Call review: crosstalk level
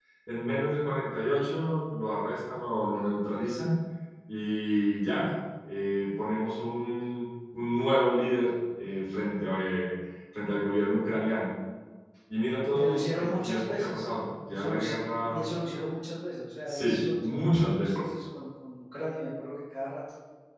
present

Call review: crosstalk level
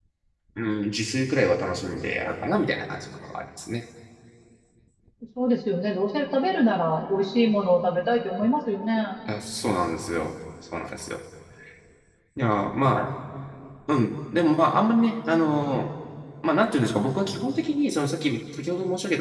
none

